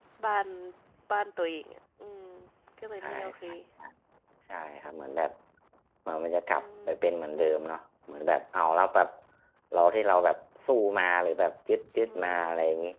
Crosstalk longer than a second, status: none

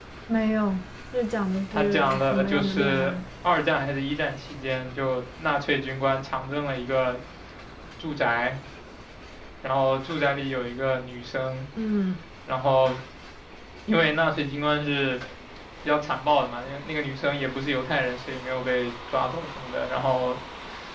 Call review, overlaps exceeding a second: present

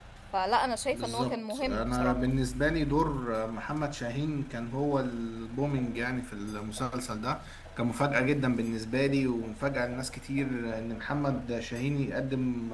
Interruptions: present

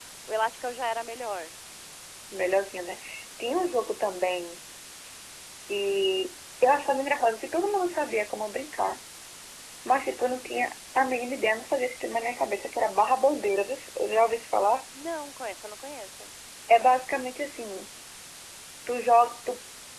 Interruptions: none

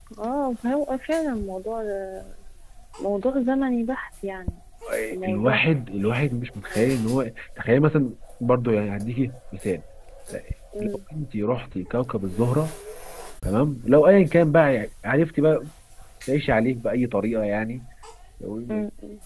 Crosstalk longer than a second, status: none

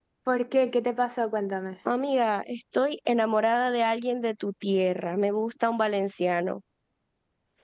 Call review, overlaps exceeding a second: none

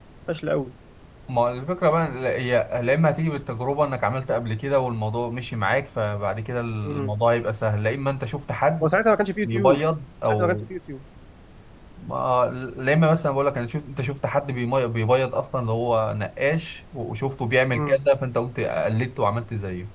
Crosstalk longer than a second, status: none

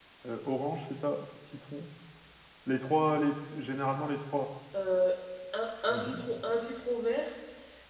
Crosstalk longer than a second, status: none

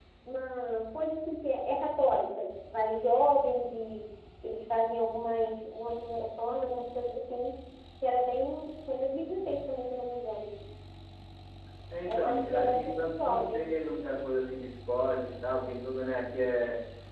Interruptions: present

